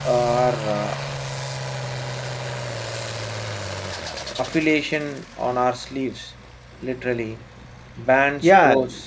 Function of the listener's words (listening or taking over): taking over